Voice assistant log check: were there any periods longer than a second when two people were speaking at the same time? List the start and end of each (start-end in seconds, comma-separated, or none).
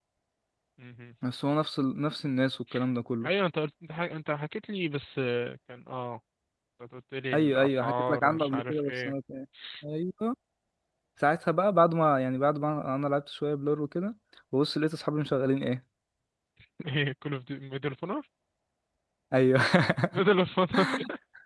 7.3-9.1